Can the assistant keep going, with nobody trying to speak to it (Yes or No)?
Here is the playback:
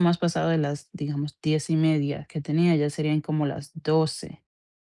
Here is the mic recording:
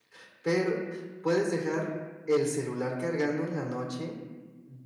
No